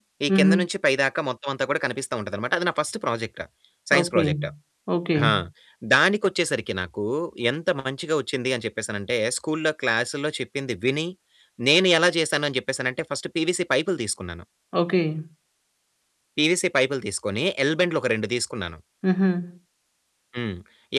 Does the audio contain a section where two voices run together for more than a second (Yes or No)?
No